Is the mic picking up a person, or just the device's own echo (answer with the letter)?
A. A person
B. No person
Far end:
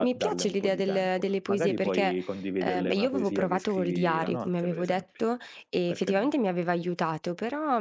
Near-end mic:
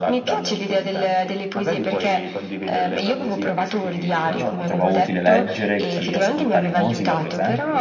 A